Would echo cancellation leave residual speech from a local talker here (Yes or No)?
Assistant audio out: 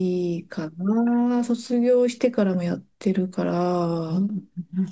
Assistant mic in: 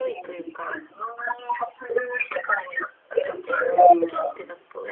Yes